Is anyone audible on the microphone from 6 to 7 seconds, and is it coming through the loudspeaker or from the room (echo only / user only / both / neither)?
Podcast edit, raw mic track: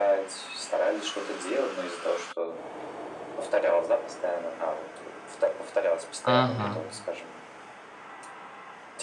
both